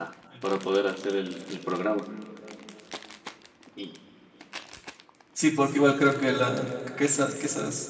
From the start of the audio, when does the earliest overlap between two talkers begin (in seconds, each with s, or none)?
none